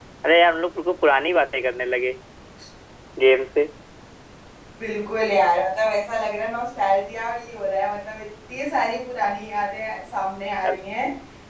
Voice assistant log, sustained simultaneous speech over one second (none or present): none